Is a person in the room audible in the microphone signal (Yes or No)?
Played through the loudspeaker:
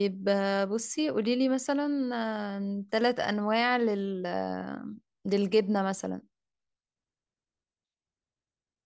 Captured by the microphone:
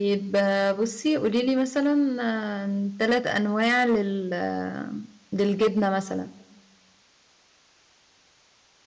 No